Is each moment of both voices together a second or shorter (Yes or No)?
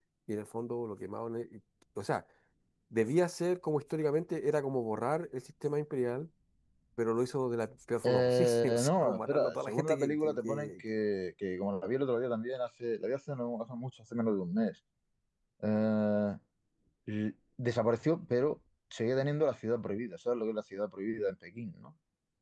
No